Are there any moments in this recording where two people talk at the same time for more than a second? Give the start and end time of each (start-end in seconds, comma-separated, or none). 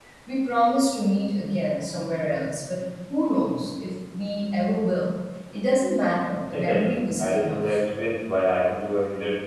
6.5-7.8